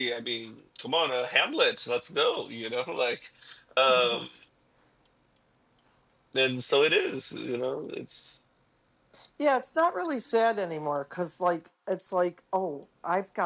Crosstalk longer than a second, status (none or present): none